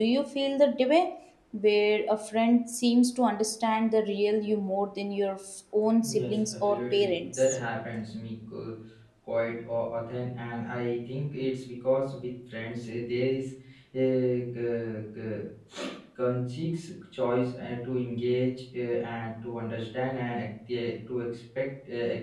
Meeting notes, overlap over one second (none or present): present